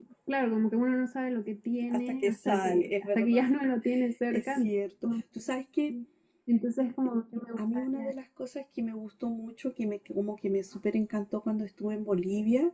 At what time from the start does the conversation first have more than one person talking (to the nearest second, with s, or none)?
2 s